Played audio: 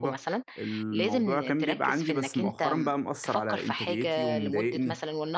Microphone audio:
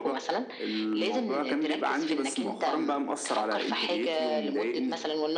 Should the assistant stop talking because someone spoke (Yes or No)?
No